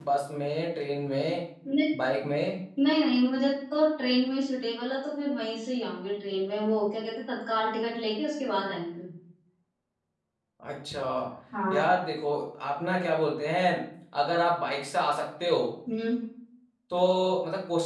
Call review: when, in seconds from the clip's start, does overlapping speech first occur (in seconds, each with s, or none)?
none